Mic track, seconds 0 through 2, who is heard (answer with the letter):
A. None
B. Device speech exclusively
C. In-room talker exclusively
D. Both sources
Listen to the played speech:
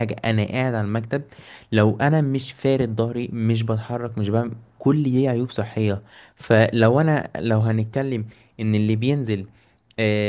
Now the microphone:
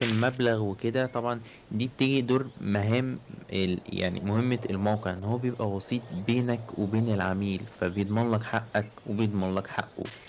C